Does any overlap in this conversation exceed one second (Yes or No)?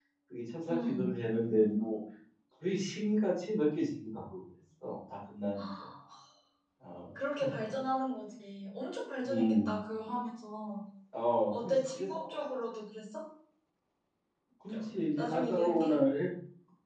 Yes